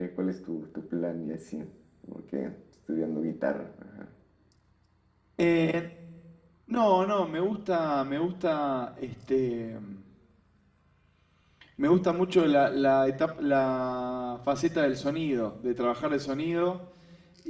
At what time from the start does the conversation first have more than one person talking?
none

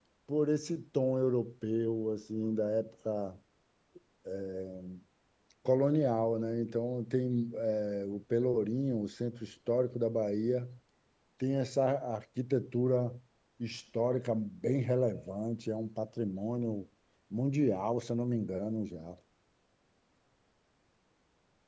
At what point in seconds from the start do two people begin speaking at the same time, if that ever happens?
none

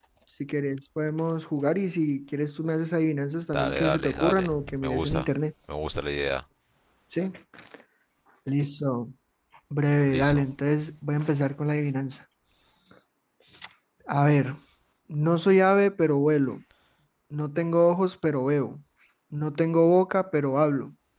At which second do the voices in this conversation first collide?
3.5 s

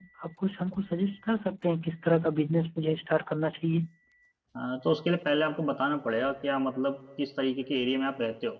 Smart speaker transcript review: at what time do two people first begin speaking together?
none

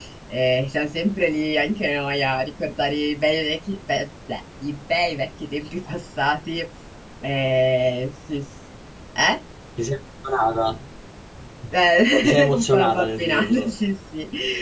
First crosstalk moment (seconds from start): 12.2 s

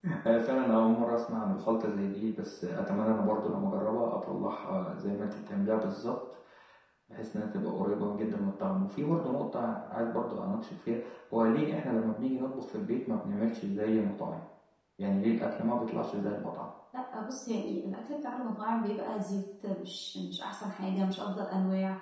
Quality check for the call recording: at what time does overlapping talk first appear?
none

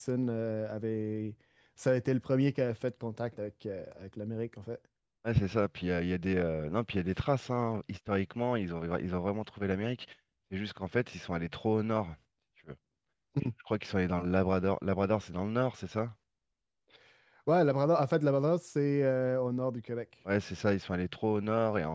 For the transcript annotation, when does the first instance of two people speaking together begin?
none

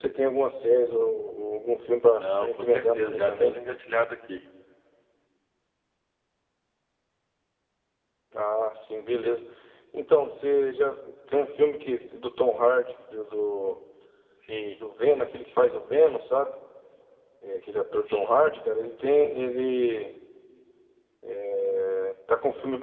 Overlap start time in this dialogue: 2.2 s

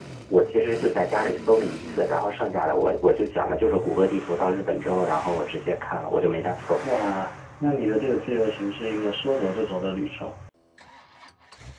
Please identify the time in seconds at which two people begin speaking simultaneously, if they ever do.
none

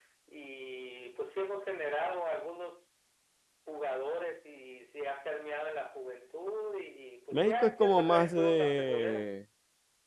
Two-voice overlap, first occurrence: 7.3 s

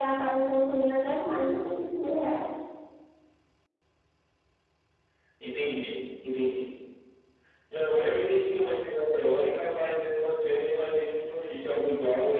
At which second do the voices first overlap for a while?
none

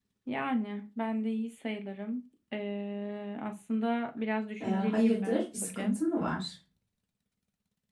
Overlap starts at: 4.6 s

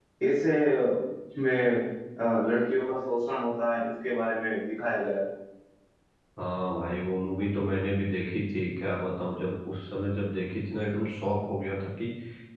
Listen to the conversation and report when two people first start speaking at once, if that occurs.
none

